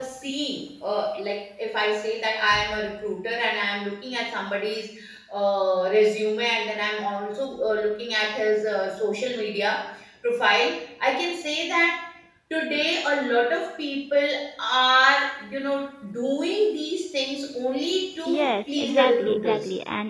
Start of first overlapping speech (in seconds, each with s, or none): 18.3 s